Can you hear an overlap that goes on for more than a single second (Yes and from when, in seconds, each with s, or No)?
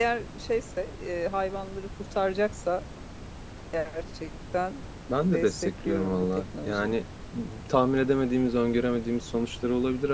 Yes, from 5.1 s